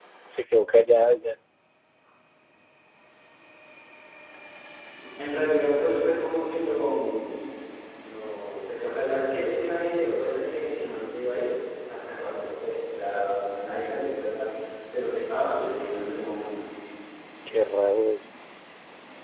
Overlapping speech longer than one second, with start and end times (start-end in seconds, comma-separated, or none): none